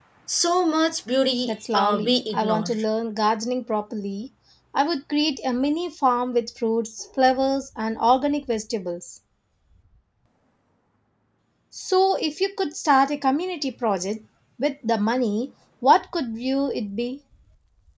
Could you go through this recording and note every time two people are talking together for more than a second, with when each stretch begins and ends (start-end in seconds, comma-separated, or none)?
1.4-2.7